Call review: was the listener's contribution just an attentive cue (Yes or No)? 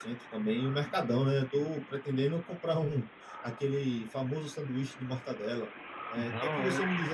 Yes